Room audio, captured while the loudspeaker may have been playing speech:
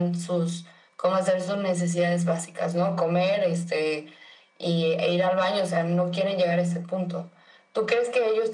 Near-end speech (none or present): none